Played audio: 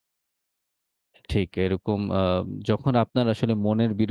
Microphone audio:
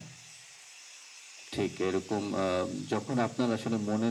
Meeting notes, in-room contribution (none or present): none